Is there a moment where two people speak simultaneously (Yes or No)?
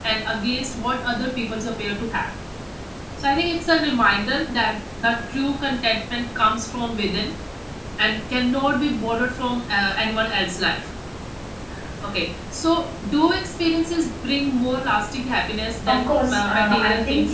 Yes